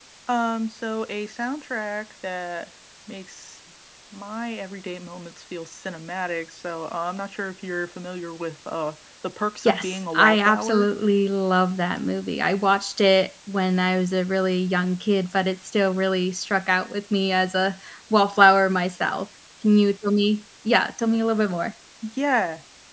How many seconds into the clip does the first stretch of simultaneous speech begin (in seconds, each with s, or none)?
9.6 s